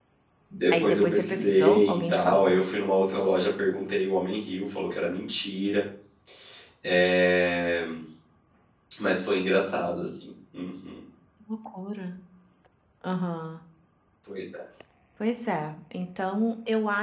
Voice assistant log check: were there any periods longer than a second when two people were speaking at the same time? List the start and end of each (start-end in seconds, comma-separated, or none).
0.7-2.5